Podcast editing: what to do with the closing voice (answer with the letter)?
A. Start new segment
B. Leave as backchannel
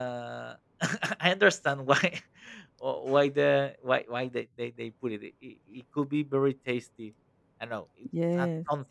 B